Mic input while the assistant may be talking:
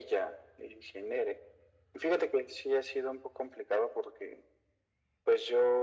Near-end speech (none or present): none